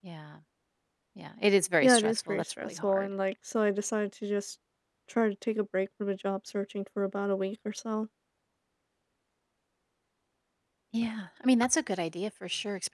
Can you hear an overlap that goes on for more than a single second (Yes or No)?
Yes